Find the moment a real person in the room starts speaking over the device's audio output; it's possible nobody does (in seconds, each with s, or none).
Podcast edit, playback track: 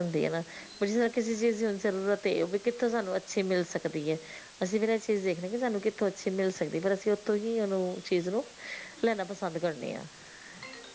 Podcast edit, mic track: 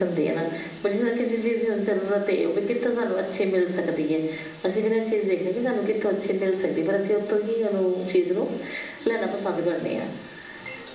none